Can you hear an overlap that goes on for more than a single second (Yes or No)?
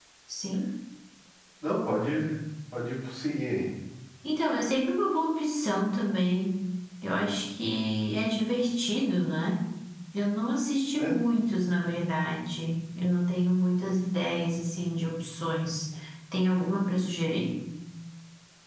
No